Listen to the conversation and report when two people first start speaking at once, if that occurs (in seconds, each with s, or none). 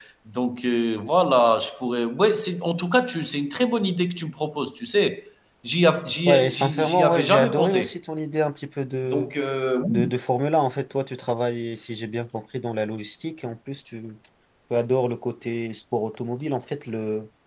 6.3 s